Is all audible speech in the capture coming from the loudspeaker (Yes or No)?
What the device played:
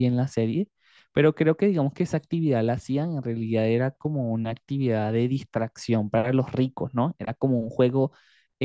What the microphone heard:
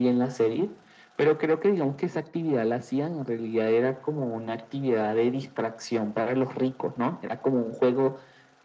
Yes